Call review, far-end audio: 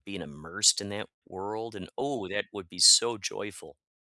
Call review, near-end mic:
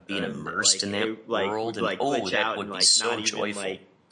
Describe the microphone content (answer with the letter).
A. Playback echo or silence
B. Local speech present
B